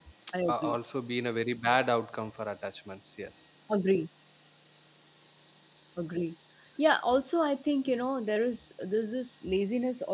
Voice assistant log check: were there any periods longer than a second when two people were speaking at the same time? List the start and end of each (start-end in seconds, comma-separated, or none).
none